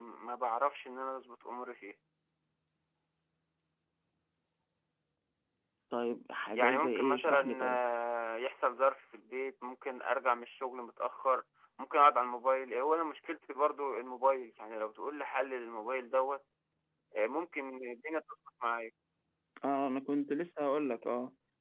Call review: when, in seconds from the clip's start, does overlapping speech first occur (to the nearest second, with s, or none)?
7 s